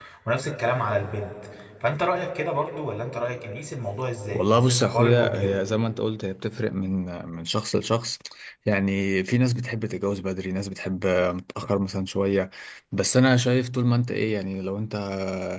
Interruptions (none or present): present